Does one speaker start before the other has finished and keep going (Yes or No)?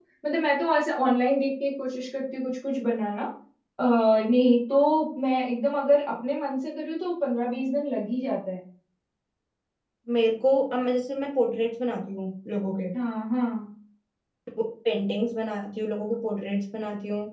No